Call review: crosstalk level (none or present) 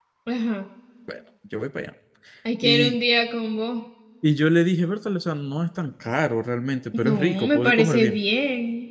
present